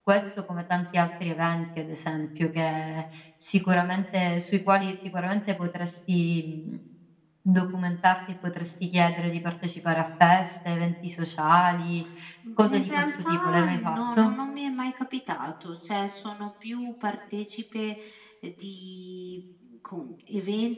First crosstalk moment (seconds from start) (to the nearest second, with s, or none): 13 s